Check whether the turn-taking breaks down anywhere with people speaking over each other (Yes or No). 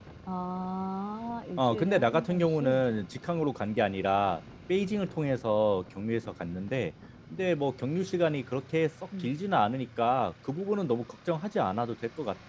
Yes